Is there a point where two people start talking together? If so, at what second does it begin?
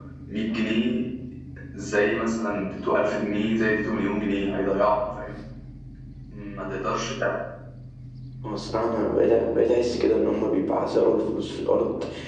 none

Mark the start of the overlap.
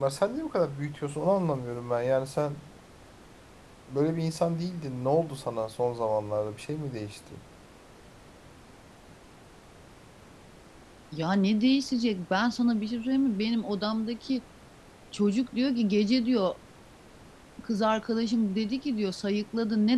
none

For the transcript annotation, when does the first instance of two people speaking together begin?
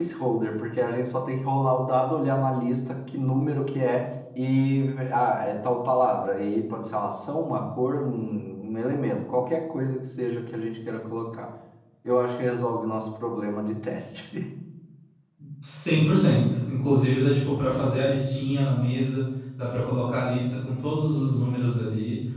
none

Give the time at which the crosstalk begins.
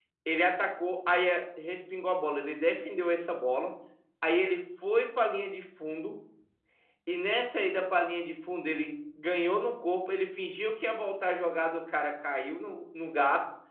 none

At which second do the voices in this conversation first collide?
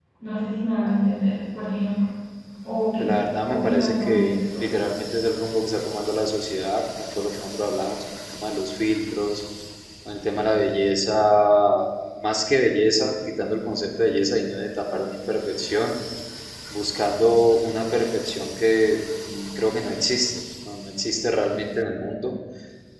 3.0 s

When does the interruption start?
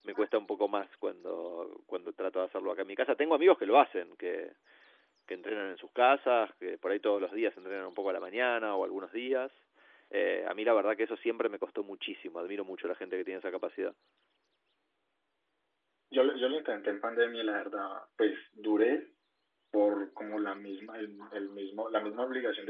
none

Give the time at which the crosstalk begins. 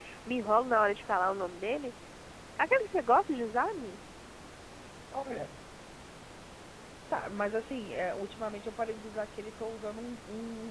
none

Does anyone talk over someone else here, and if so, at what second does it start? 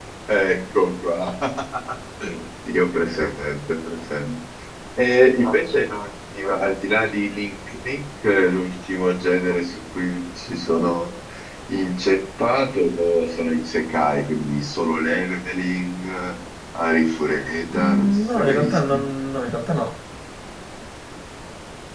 17.7 s

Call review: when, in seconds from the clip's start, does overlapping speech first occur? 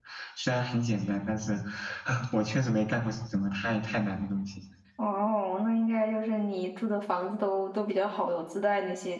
none

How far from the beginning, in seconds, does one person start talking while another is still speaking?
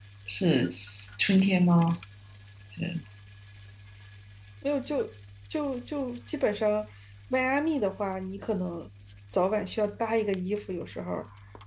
none

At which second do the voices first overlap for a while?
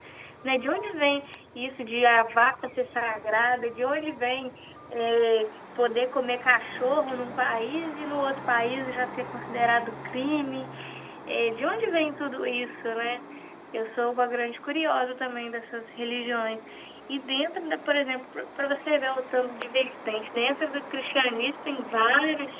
none

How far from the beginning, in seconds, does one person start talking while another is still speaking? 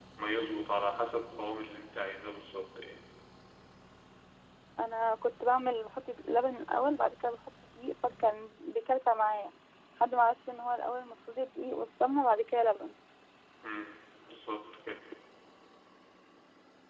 none

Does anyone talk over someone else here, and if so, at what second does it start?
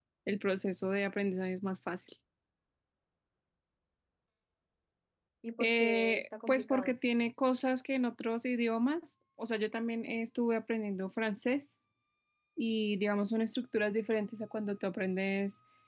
5.6 s

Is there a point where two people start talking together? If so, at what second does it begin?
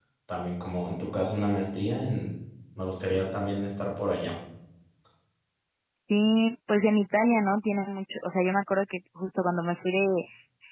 none

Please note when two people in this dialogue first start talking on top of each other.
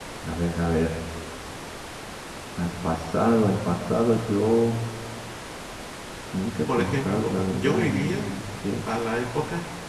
6.7 s

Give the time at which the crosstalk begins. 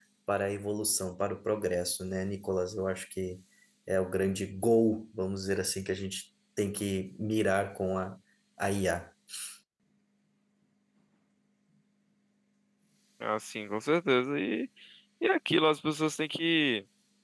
none

